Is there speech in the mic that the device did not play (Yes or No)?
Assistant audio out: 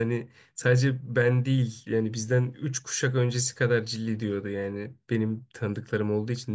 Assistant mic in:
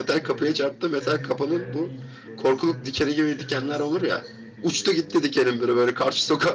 Yes